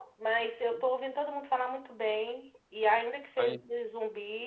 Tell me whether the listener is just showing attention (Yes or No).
Yes